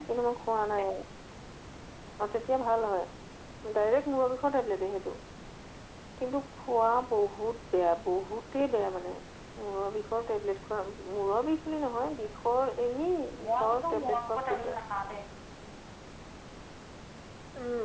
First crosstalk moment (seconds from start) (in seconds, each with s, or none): 13.4 s